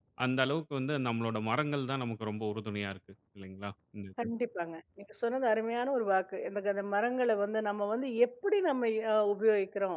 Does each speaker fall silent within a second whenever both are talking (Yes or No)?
Yes